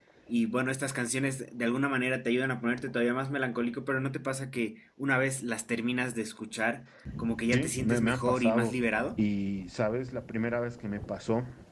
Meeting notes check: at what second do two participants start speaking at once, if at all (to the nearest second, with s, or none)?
8 s